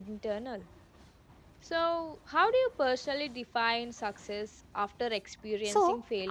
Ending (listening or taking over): taking over